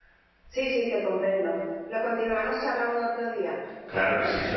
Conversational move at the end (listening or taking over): taking over